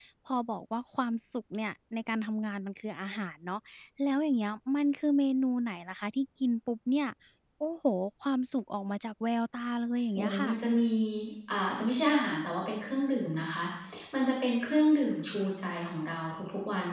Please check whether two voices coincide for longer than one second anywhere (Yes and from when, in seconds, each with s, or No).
No